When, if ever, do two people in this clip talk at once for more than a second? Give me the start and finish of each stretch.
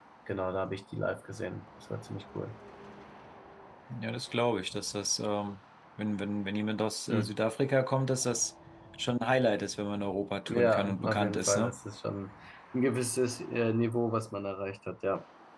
10.5-11.7

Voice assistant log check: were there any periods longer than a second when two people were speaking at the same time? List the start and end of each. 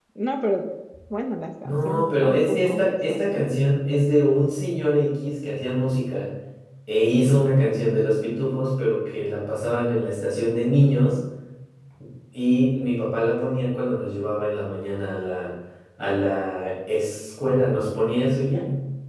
1.6-3.5

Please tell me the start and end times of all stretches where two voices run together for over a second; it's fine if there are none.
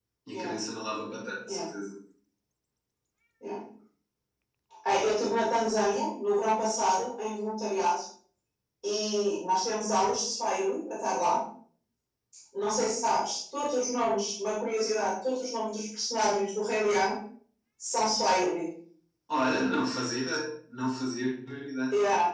none

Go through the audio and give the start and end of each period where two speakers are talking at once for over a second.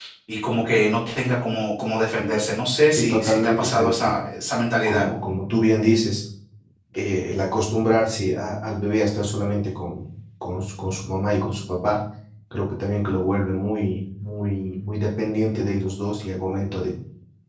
2.9-4.2

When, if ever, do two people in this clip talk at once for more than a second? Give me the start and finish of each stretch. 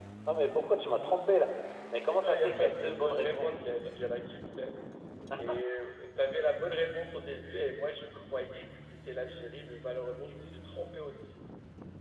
2.0-3.6

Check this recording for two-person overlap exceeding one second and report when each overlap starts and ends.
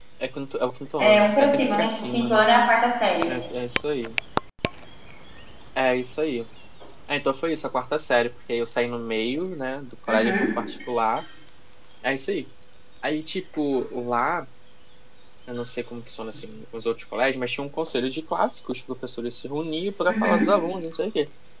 1.0-2.5

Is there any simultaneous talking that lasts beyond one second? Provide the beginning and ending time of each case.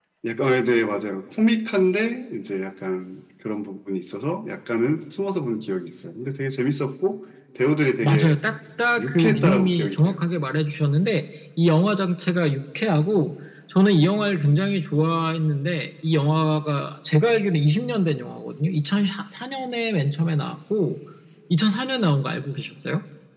9.0-10.2

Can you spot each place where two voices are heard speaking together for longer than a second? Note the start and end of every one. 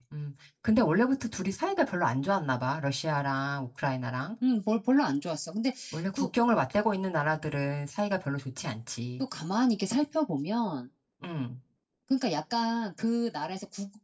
none

